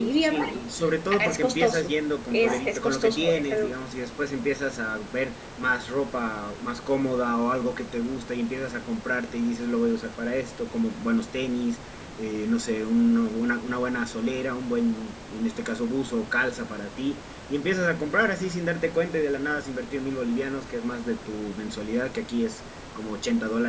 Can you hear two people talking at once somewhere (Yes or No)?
Yes